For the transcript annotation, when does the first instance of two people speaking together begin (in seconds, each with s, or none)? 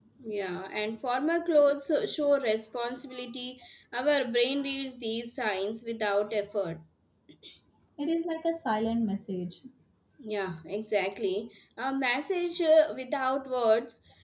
none